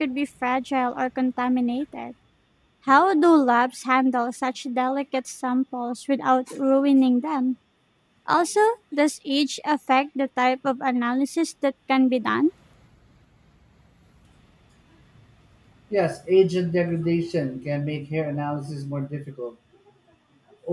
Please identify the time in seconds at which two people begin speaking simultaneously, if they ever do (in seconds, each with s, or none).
none